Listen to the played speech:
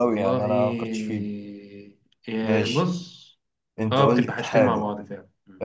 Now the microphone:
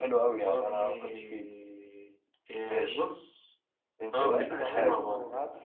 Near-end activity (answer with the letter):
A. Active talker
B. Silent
A